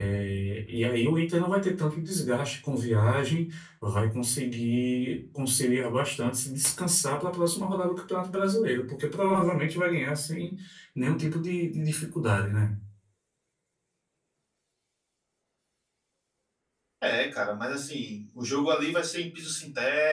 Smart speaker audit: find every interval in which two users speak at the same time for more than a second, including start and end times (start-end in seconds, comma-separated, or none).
none